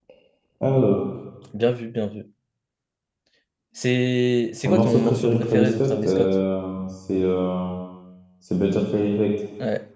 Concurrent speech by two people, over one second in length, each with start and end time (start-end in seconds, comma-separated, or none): 4.7-6.3